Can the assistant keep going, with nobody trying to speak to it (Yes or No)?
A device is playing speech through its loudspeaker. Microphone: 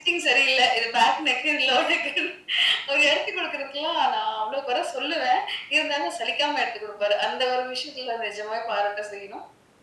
Yes